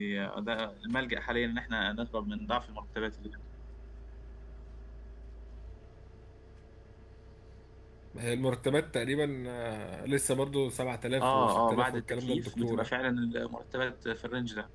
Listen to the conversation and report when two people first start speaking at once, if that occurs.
11 s

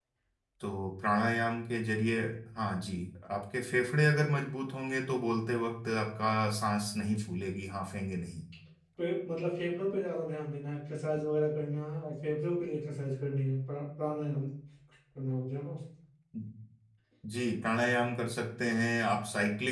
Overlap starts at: none

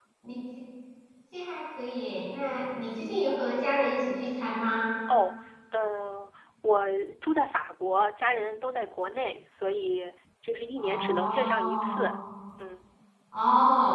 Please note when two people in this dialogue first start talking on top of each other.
11 s

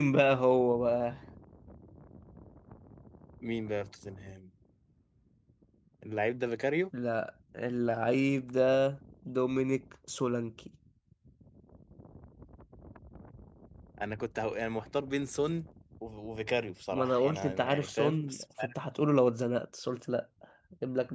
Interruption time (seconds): 17 s

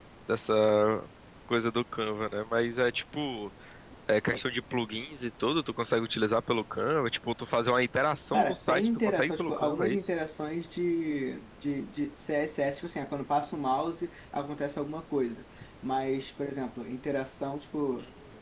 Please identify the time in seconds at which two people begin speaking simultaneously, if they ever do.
8 s

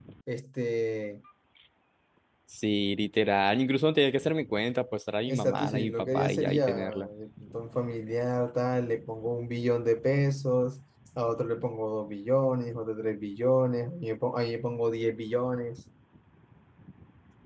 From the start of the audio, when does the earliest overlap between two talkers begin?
5 s

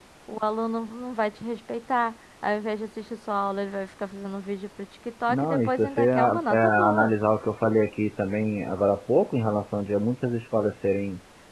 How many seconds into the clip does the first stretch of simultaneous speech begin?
5 s

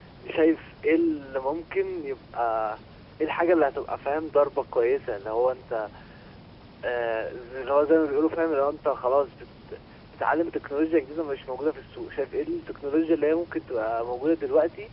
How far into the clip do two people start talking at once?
none

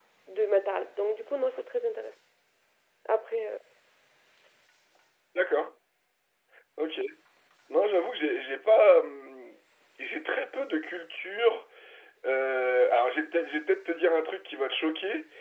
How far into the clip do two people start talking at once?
none

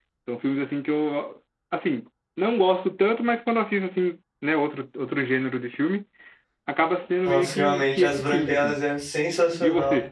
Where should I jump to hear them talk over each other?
7 s

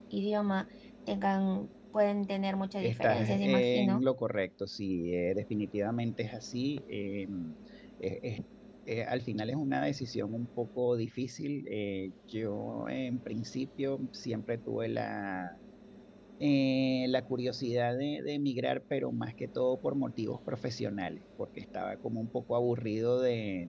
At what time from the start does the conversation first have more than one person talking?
3 s

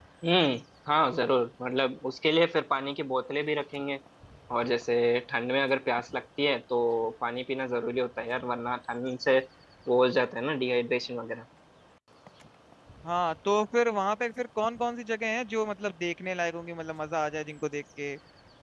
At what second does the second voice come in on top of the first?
none

